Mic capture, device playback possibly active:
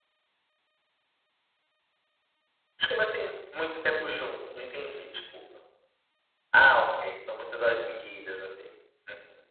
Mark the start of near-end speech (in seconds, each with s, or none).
none